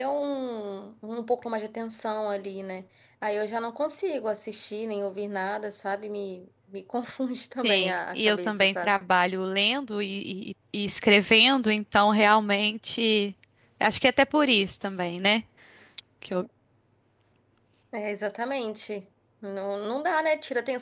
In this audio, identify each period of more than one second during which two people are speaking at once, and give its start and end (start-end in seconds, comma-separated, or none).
7.6-8.9